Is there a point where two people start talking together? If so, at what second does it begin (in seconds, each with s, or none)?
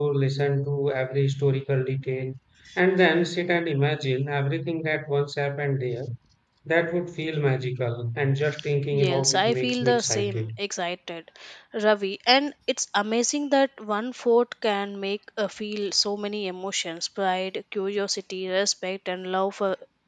8.9 s